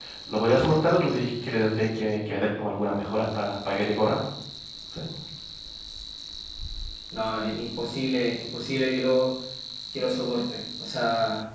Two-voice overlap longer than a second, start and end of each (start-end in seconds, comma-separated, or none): none